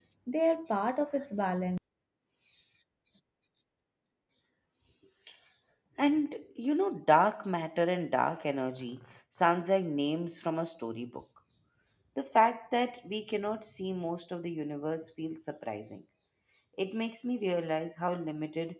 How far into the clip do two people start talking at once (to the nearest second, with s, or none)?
none